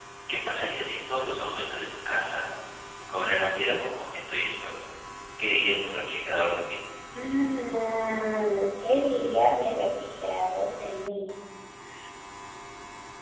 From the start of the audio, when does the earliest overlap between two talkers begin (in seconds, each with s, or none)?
none